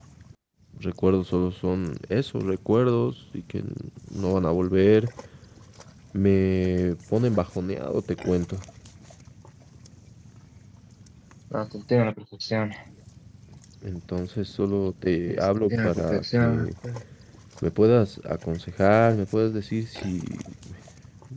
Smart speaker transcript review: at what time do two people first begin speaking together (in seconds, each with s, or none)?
15.3 s